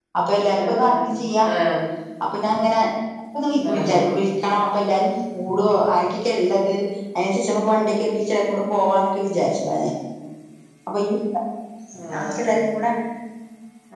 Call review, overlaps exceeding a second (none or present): none